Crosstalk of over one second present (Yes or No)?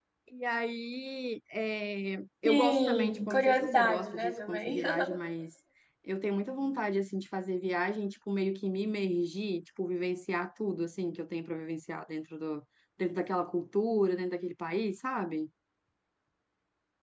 Yes